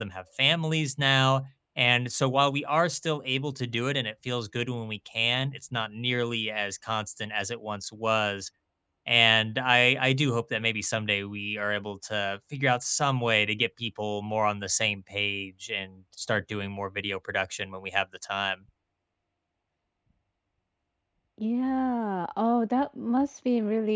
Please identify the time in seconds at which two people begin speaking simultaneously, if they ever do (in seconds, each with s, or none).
none